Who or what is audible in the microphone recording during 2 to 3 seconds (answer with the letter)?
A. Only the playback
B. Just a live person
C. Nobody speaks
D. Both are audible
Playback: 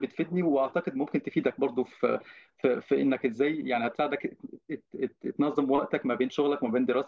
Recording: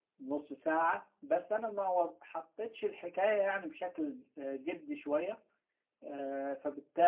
B